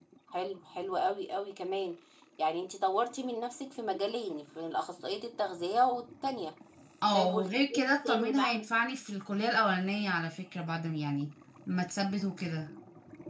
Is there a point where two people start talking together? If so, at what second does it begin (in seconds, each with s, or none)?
7.1 s